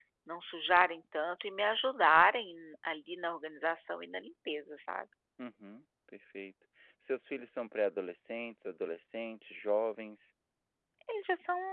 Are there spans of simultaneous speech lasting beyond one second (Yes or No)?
No